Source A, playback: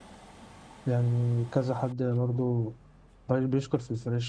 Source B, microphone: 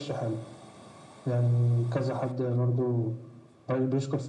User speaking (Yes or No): No